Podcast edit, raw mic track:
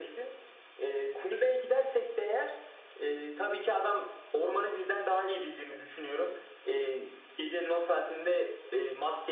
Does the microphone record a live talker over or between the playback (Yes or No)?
No